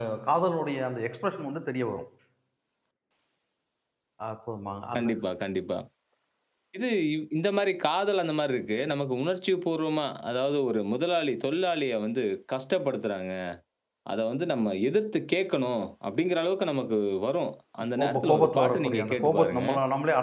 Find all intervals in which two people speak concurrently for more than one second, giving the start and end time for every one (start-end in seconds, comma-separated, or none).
18.0-19.6